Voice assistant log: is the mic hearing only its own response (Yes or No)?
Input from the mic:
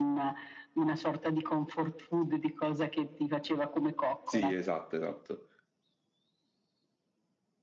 No